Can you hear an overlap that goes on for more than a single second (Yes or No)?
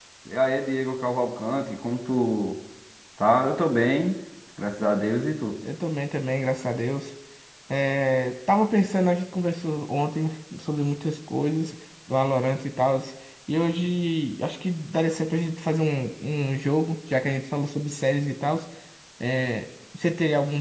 No